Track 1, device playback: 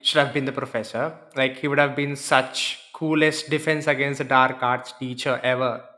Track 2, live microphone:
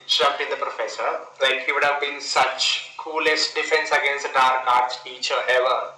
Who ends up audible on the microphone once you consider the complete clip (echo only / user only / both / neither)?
echo only